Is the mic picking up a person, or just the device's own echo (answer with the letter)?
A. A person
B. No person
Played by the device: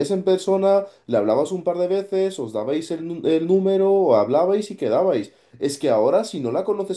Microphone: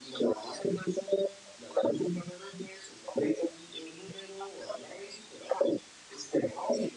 B